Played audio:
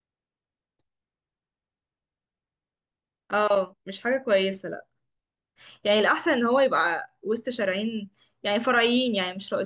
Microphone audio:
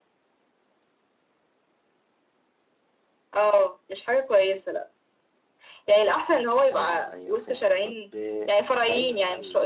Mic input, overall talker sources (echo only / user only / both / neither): both